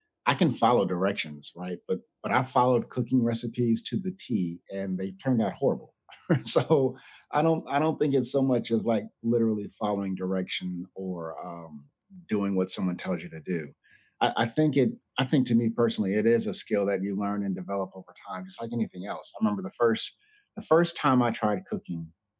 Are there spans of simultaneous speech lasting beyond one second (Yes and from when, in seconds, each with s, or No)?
No